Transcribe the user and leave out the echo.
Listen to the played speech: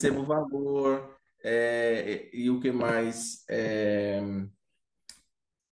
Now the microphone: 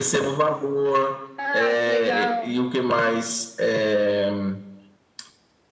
Ah, que legal.

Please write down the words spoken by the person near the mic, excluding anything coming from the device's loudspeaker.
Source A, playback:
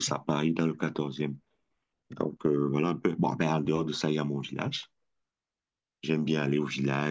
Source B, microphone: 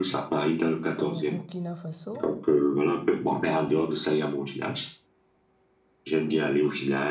au Burkina Faso,

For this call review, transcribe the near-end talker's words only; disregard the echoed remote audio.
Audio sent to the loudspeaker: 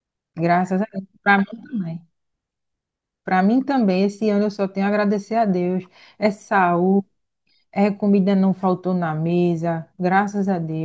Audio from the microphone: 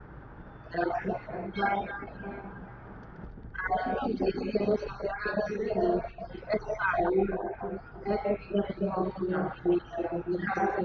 none

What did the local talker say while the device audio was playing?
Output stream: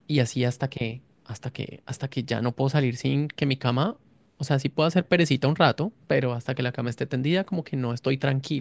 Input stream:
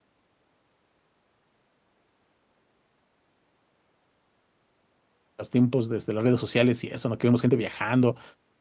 los tiempos desde las redes sociales y eso, ¿no? Que vemos gente viajando

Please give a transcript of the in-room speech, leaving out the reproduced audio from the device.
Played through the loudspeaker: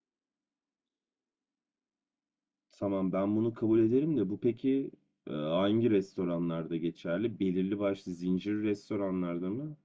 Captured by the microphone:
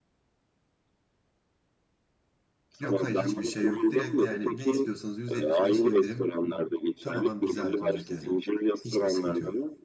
Yok hayır hiçbir şey yok. Direkt yani ne istiyorsanız %75 indirim tamamen bize ait olacak yani. Hiçbir sıkıntı yok.

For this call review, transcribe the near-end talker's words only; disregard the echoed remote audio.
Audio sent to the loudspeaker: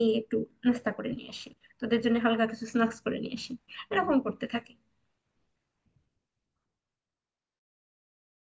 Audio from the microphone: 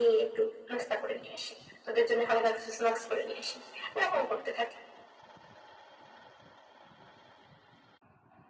none

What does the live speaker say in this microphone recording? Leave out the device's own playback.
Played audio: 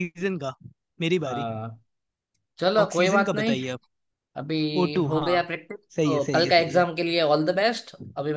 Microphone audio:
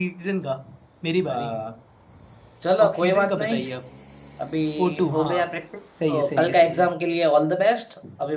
none

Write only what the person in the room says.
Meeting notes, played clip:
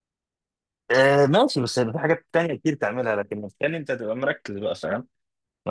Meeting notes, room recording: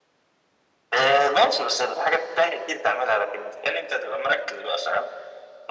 none

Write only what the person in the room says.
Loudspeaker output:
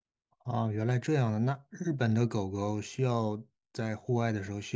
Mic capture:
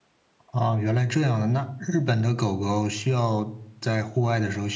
none

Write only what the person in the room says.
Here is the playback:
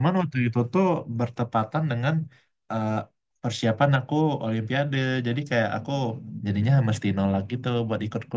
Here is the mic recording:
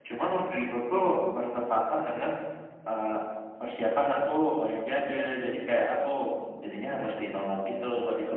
none

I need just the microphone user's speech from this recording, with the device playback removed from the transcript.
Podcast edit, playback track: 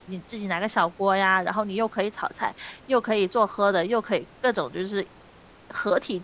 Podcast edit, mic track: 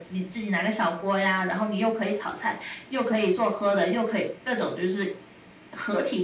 none

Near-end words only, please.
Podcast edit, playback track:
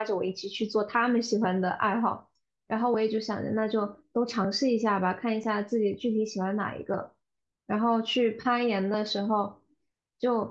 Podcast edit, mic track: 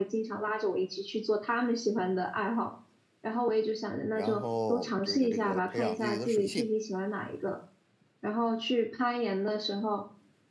然后这个这个培养自己的水性，

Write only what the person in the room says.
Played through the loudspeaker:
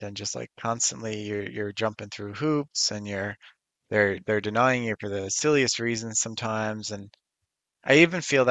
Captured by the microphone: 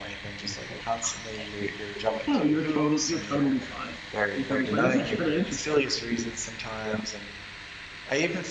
no you're total you're totally fine you're totally fine this is actually kind of interesting

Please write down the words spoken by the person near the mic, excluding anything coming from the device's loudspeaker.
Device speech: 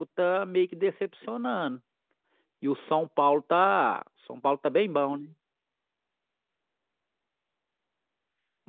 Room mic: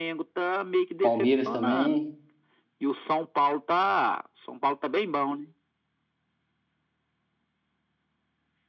Palmeiras também.

